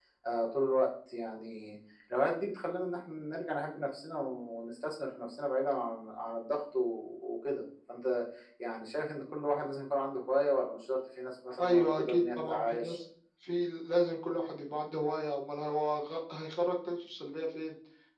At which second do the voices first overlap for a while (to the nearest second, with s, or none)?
12 s